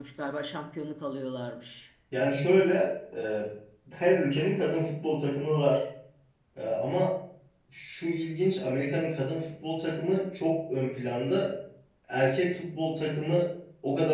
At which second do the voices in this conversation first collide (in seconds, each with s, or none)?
none